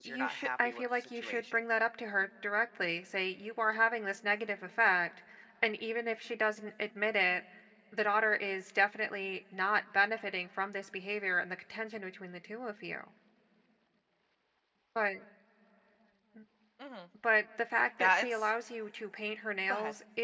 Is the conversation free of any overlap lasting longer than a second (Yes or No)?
No